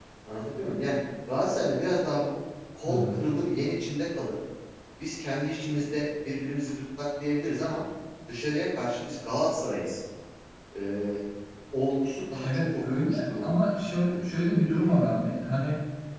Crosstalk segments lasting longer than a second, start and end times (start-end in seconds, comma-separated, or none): 12.3-13.5